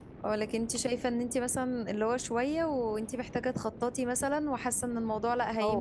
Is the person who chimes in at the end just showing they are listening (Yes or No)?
No